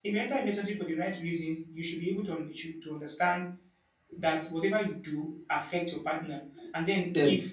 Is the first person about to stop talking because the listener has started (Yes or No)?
No